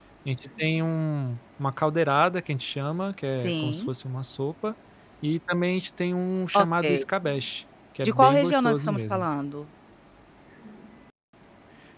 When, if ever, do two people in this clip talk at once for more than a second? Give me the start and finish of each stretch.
8.0-9.3

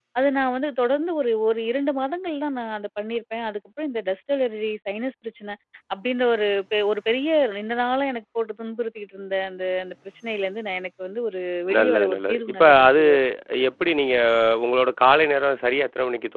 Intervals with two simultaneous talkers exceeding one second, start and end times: 11.8-13.0

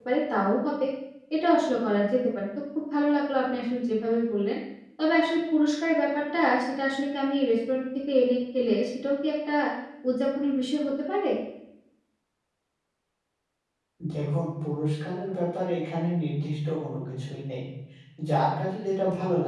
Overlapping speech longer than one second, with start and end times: none

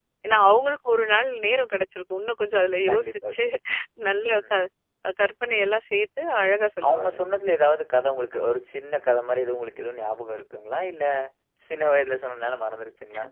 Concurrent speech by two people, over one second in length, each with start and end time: none

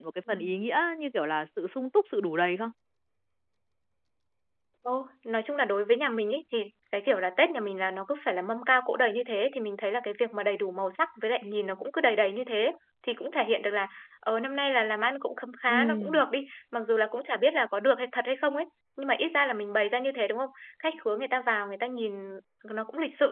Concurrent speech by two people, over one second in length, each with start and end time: none

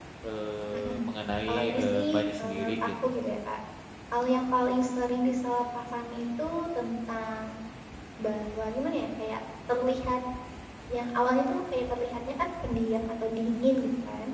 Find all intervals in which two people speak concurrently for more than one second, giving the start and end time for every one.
1.5-2.9

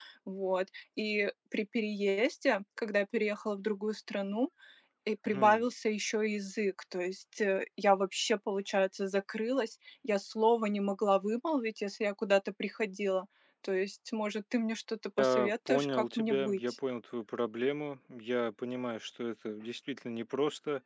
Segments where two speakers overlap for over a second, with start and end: 15.2-16.6

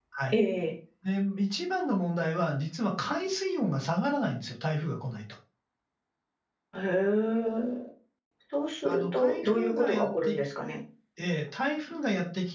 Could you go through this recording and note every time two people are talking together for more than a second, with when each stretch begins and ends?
8.8-10.3

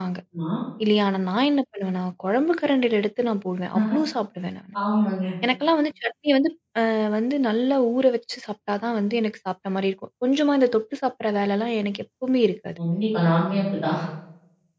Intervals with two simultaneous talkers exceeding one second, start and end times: none

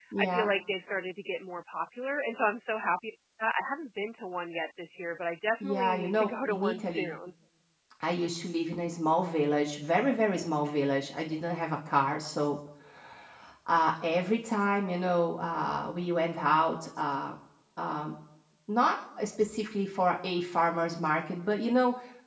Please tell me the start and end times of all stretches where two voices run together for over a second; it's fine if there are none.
5.6-7.0

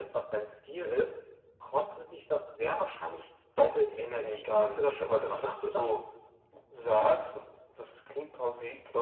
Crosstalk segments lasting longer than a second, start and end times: 4.1-5.8

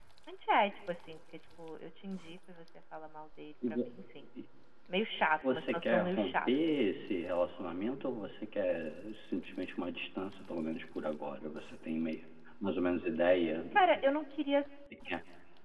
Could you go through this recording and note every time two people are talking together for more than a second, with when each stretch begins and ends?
5.4-6.7

